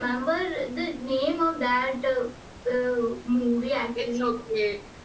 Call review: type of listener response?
taking over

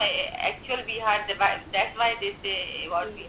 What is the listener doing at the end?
taking over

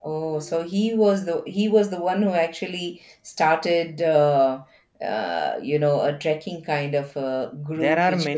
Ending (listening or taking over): taking over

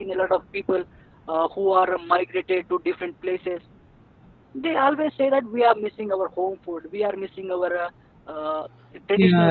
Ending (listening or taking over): taking over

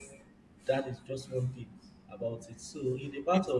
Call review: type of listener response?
listening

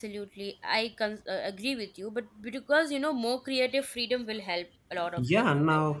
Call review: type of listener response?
taking over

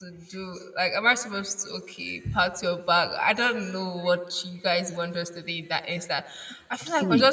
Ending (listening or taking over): listening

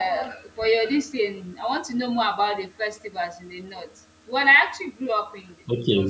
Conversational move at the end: taking over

